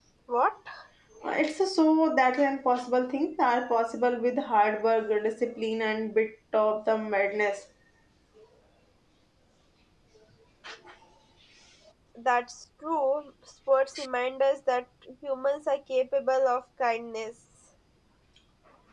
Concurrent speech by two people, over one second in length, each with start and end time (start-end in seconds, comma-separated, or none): none